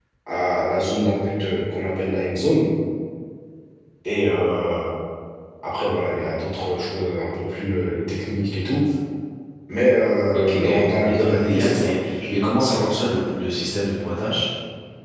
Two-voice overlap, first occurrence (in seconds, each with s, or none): 10.3 s